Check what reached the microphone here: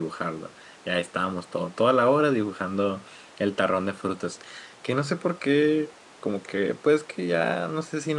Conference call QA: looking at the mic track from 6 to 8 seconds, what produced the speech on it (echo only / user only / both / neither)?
user only